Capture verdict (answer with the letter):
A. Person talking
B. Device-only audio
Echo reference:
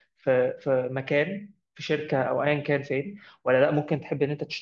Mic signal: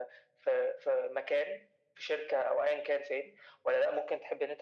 B